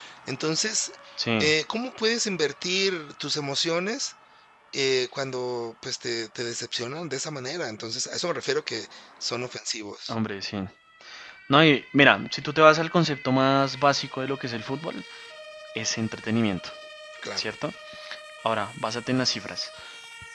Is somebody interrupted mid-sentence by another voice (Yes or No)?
No